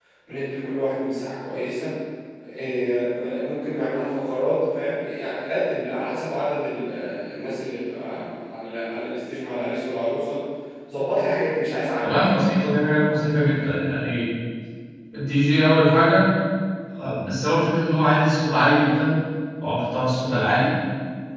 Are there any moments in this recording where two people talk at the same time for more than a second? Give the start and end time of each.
none

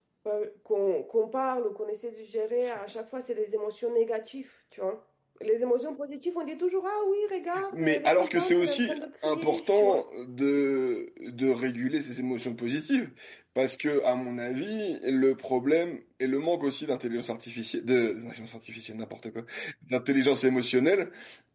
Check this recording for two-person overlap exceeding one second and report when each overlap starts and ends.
7.7-10.0

